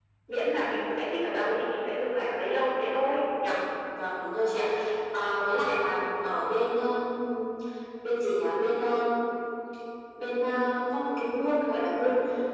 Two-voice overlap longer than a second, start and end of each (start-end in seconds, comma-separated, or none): none